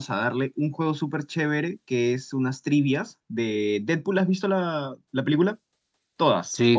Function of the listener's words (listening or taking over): taking over